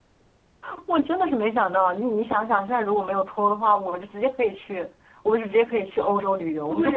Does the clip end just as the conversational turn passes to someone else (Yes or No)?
Yes